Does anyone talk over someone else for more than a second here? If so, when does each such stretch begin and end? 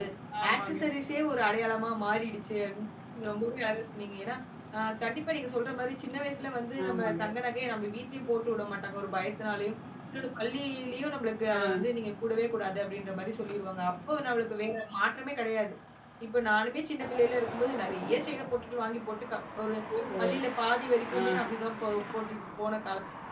none

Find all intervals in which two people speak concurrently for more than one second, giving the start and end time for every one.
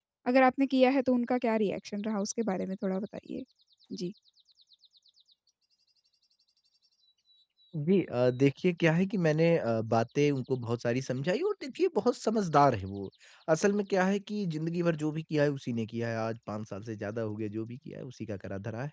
none

